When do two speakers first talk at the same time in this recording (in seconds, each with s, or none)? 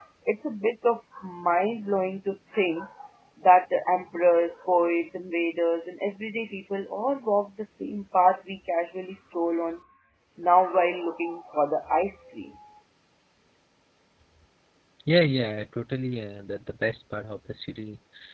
none